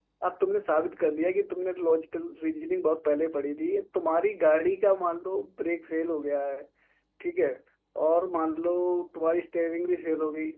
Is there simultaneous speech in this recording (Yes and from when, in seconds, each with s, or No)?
No